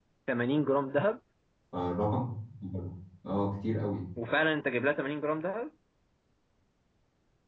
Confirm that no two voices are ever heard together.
Yes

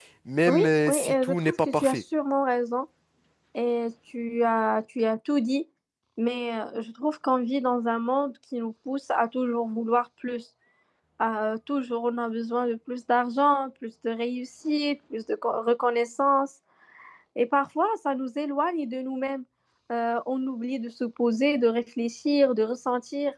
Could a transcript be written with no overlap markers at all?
No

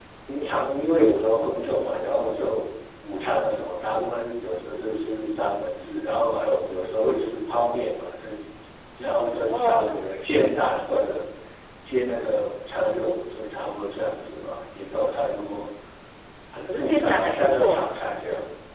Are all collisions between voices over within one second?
No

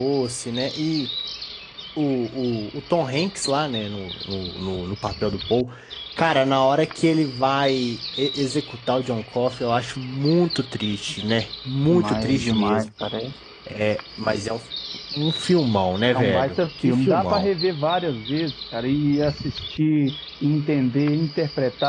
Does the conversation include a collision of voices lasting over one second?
Yes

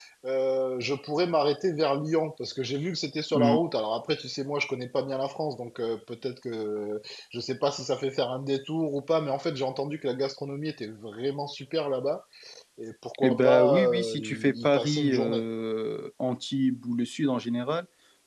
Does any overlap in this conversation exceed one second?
Yes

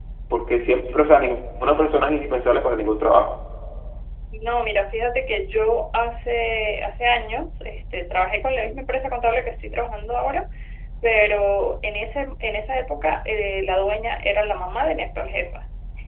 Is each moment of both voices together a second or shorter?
Yes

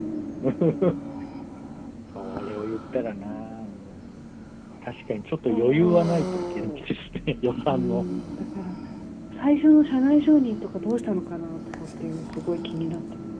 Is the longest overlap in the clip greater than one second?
Yes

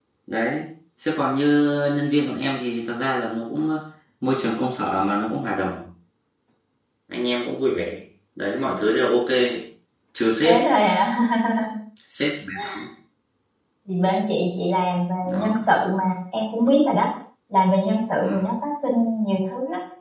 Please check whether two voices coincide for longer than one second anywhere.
No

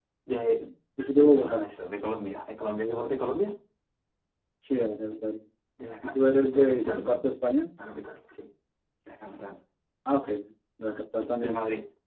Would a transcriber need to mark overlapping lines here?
Yes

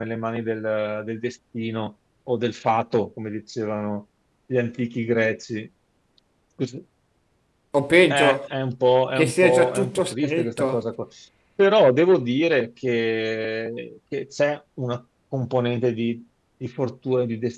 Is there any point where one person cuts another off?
Yes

